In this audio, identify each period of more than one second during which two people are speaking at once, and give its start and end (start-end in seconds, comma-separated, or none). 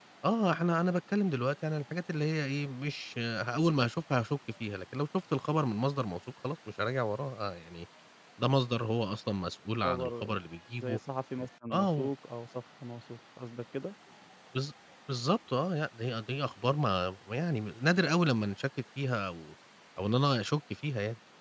none